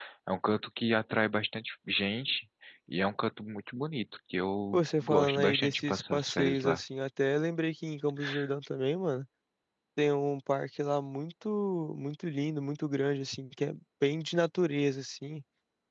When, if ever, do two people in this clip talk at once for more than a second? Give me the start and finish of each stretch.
4.7-6.8

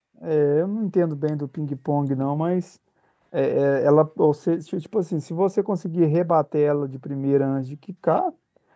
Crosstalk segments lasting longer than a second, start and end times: none

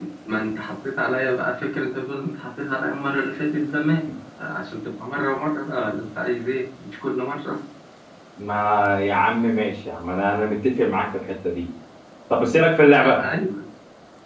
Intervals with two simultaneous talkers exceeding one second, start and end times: none

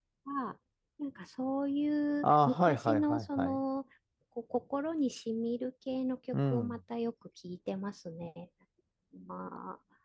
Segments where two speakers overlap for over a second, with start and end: 2.2-3.6

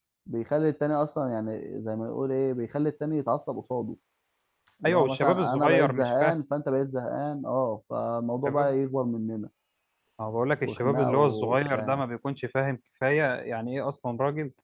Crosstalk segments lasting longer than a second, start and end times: 4.8-6.3, 10.6-12.0

